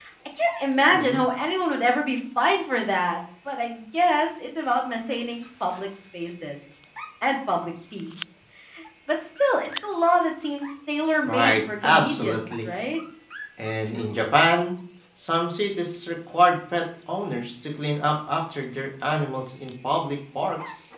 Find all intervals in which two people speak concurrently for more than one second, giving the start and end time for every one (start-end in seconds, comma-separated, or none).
11.2-12.7